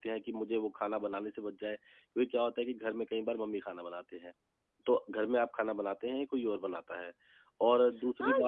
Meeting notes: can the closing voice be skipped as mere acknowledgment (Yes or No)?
No